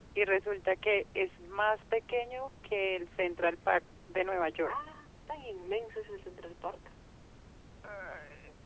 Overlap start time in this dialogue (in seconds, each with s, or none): none